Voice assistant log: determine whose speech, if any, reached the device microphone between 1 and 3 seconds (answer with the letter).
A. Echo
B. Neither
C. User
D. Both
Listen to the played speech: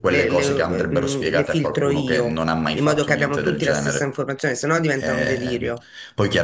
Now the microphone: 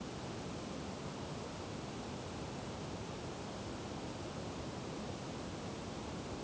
B